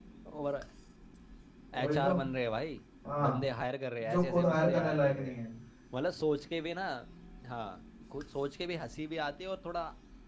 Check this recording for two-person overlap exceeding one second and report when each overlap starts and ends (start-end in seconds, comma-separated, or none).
4.0-5.4